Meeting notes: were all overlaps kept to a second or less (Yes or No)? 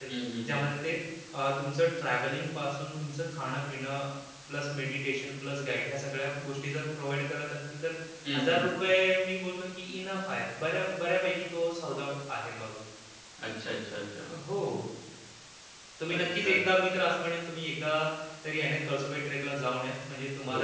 Yes